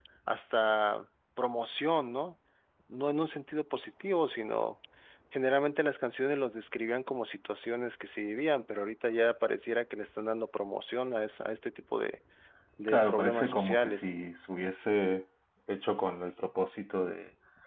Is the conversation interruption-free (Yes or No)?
No